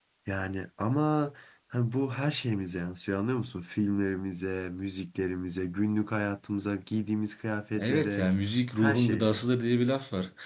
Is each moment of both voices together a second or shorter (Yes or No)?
Yes